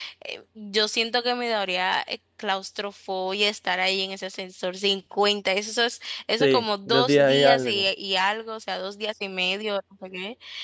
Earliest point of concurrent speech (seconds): 6.4 s

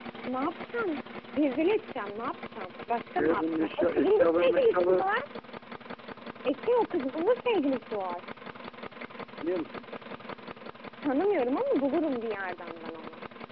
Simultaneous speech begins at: 3.2 s

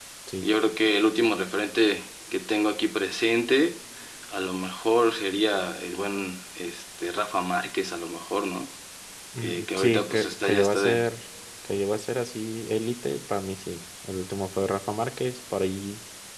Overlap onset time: 9.4 s

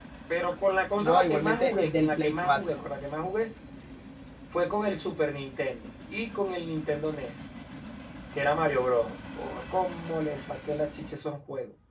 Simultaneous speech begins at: 1.0 s

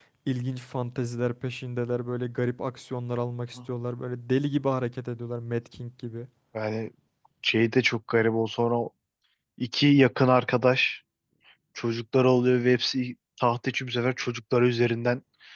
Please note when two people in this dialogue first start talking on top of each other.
none

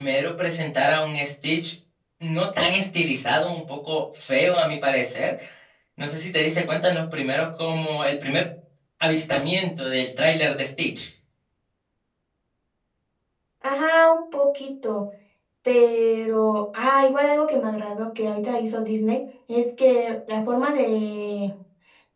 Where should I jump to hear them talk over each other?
none

